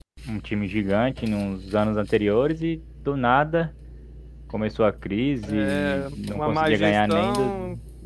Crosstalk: present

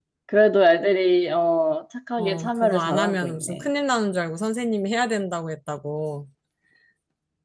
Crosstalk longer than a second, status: present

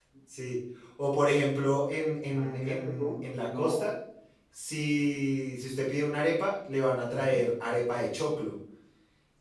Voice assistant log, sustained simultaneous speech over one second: present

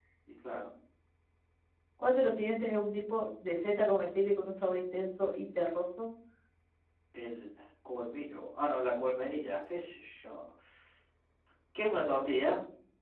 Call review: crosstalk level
none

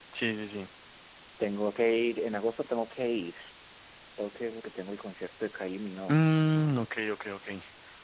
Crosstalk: none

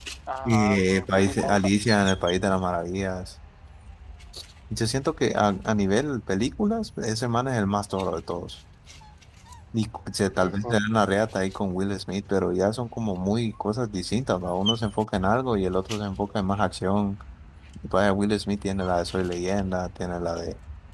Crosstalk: present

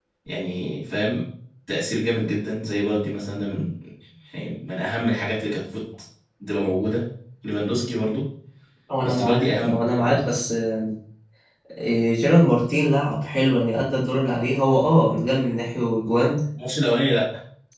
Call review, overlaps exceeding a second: present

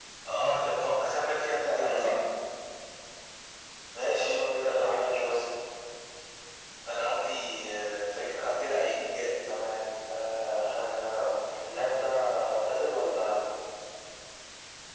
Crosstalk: present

